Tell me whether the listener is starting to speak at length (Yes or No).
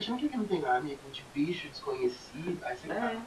Yes